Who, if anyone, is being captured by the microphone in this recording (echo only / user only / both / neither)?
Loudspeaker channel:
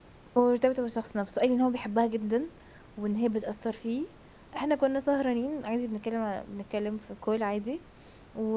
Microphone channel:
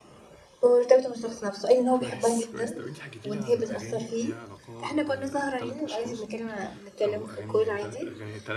both